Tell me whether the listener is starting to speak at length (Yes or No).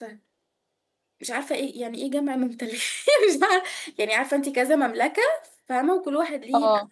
No